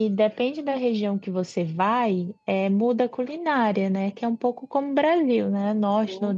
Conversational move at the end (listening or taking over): listening